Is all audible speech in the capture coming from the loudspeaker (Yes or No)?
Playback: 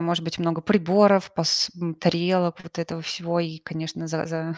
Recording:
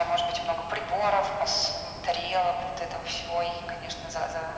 Yes